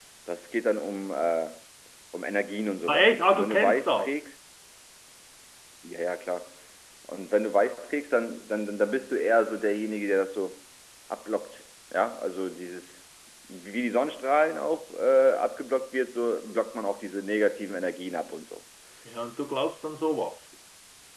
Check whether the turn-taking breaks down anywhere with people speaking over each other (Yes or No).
Yes